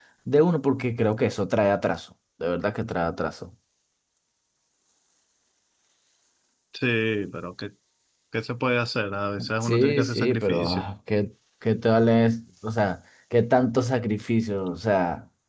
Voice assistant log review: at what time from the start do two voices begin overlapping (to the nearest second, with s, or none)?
9 s